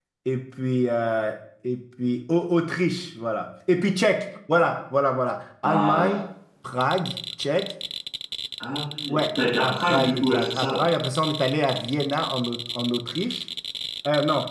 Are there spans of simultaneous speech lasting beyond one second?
Yes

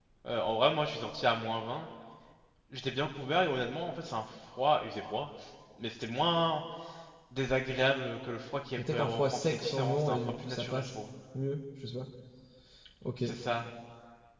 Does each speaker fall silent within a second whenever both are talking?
No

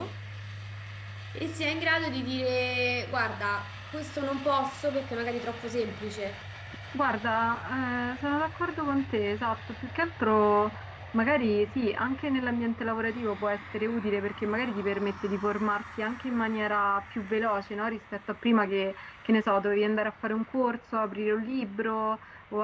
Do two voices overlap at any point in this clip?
No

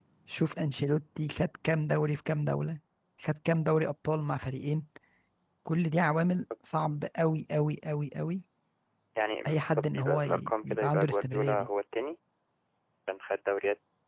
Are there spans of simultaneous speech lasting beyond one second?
Yes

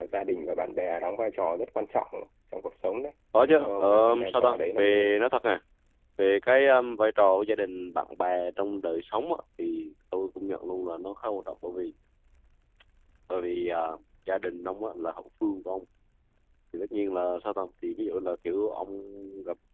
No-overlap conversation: No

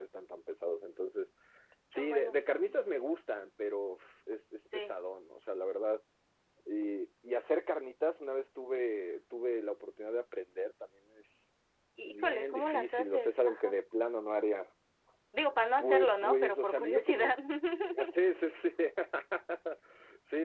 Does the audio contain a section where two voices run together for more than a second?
Yes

